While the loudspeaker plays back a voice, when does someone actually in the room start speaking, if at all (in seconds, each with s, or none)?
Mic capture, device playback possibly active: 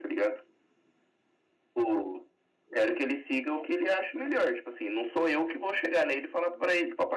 none